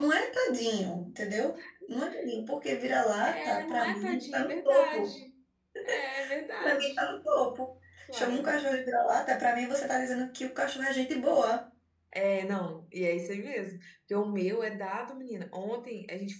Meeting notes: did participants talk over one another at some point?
Yes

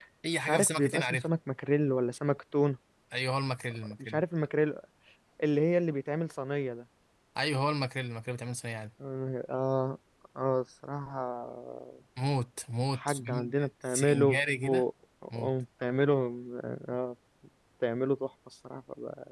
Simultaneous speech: Yes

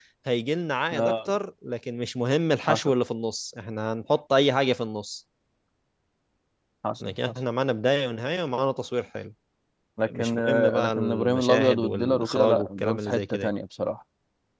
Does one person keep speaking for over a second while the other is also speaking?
Yes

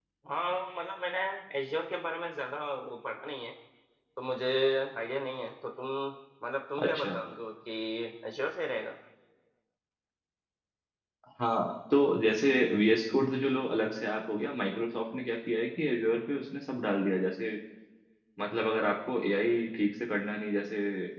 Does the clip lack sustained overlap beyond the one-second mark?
Yes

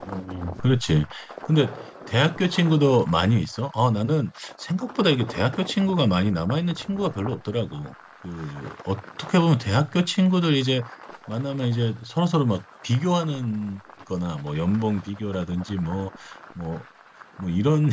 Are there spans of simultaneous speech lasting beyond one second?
No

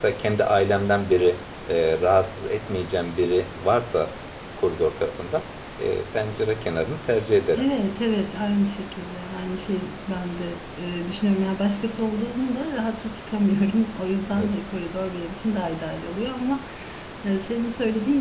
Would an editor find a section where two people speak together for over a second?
No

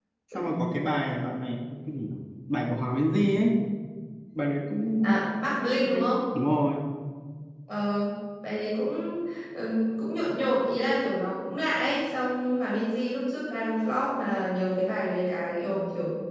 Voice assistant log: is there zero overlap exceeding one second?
Yes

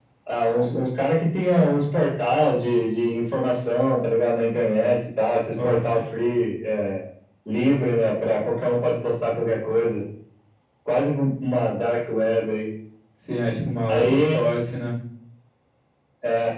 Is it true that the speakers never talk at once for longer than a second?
Yes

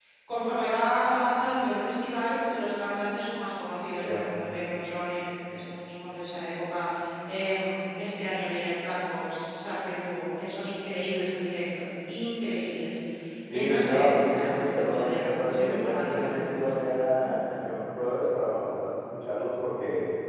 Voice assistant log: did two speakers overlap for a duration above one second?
Yes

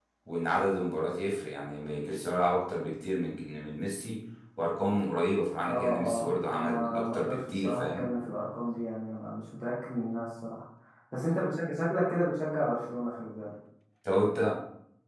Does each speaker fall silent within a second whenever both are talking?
No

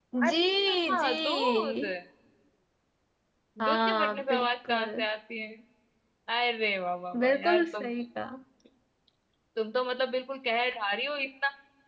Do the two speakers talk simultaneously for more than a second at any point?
Yes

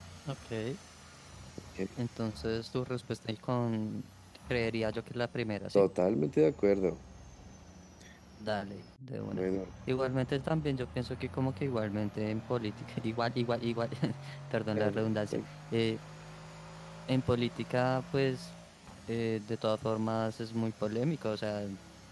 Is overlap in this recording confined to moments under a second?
Yes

